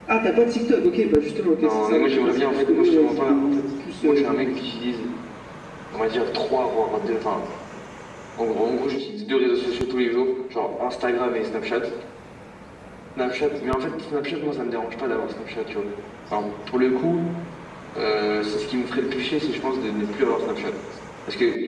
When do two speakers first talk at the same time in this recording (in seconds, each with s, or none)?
1.6 s